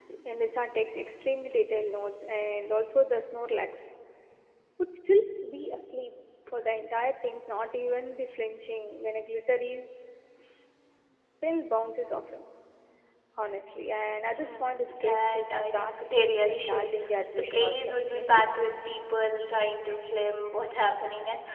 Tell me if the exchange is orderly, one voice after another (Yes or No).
No